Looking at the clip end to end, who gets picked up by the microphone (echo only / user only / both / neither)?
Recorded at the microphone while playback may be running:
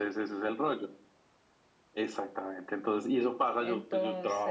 both